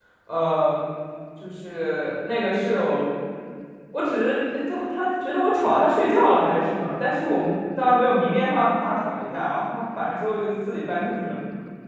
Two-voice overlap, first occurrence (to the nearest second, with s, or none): none